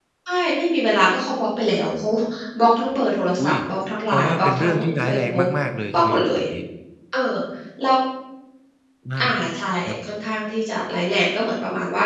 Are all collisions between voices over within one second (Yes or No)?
No